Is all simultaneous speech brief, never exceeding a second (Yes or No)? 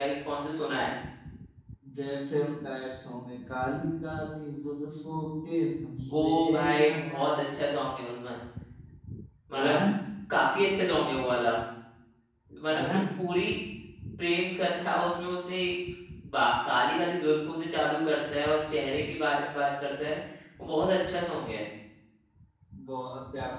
No